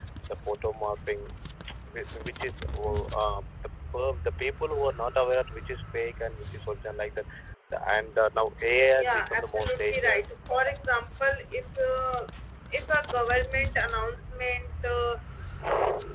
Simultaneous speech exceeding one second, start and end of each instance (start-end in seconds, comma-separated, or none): 9.0-10.2